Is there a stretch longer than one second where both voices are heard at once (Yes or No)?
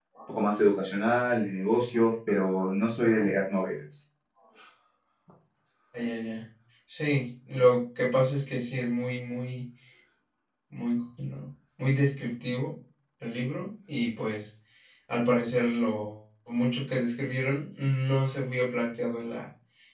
No